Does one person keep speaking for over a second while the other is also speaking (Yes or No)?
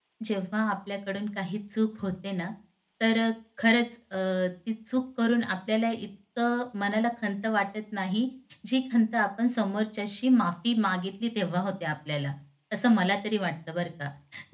No